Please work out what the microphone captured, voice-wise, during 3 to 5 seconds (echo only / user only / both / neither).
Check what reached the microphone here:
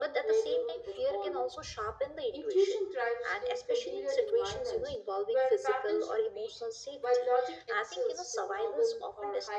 echo only